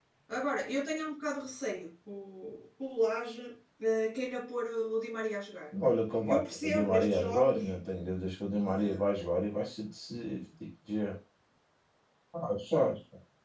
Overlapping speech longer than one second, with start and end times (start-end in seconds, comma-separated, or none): 5.9-7.7